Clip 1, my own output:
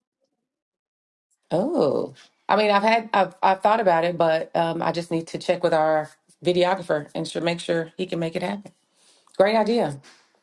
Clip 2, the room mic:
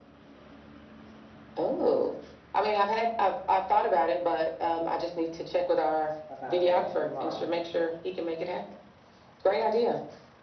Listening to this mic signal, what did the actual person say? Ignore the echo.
about that. You're right,

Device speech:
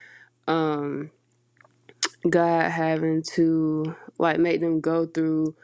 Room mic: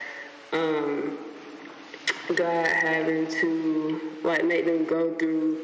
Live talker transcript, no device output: none

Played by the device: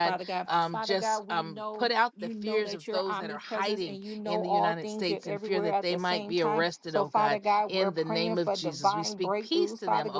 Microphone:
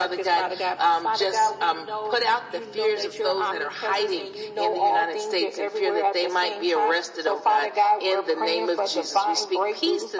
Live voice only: none

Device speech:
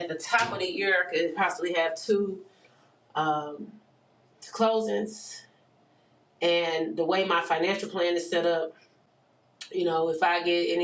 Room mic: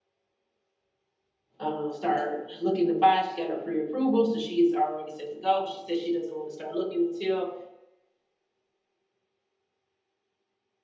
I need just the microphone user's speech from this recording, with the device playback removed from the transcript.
uh, start looking to buy. She got her pre-approval, so she is already set to go. But she said she doesn't want to start looking until

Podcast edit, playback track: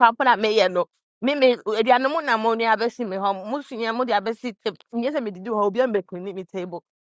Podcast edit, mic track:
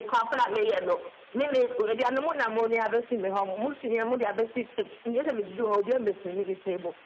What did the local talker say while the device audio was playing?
none

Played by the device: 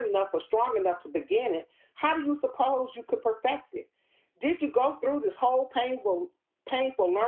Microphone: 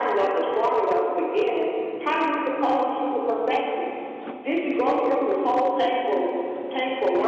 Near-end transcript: none

